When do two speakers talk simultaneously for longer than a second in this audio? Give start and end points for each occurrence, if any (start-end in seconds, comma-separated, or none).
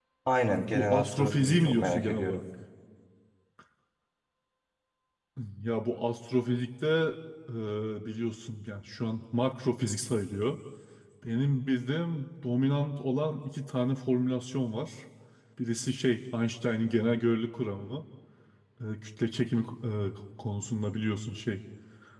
0.7-2.4